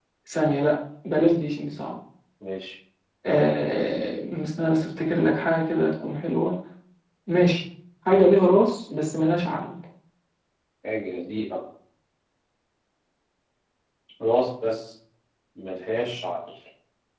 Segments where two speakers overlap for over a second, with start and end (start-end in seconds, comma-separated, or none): none